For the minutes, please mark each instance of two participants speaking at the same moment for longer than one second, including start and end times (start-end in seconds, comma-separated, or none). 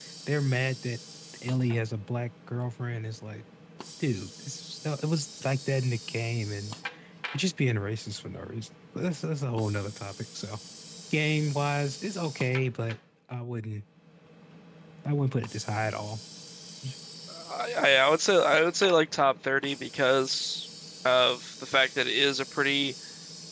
none